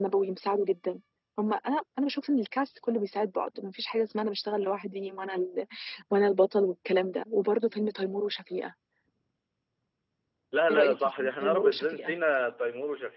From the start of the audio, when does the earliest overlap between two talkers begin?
10.7 s

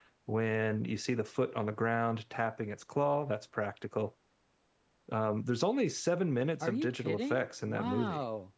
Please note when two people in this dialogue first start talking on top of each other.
6.6 s

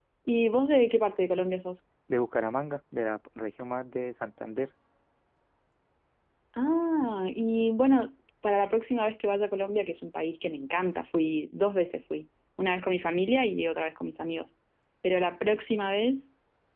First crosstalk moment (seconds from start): none

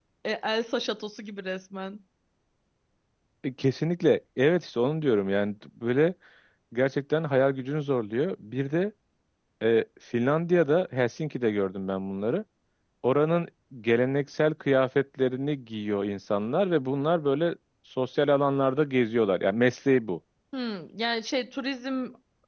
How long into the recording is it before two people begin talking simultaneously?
none

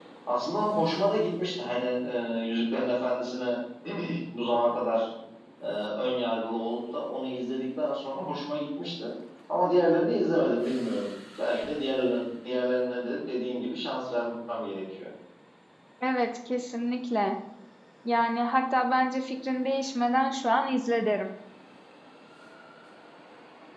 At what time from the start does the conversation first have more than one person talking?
none

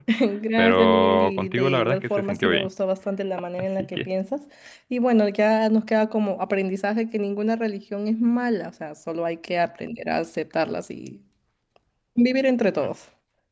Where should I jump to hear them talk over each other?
0.6 s

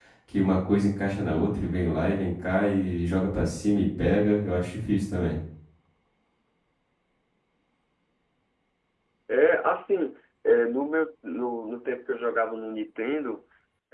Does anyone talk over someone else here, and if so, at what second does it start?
none

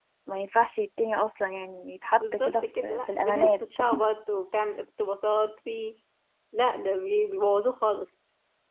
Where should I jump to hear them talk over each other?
2.2 s

